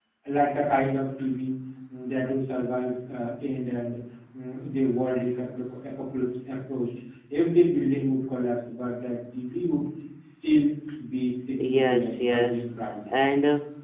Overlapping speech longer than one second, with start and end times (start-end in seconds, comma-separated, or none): 11.6-13.2